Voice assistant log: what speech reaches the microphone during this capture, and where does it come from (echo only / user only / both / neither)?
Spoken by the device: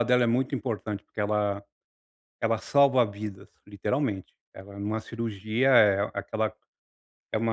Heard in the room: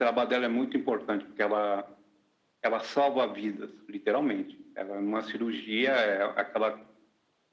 echo only